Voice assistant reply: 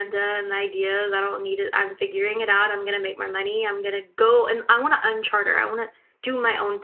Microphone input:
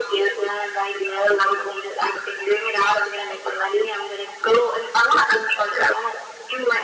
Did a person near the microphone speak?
No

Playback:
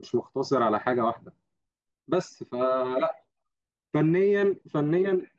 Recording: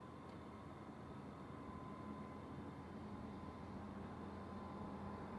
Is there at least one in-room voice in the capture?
No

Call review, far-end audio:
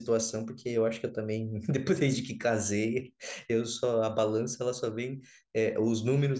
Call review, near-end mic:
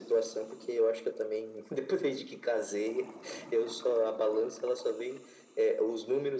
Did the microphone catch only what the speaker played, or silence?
Yes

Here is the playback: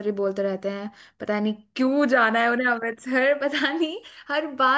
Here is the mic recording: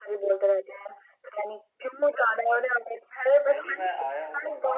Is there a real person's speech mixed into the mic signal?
Yes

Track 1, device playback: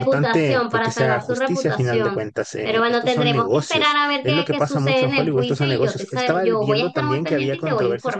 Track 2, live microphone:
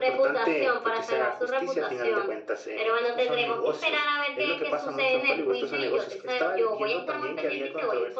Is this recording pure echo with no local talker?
Yes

